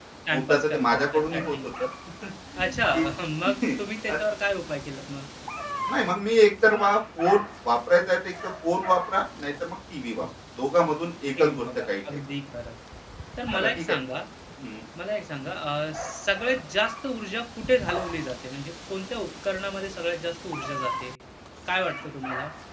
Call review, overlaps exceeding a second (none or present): present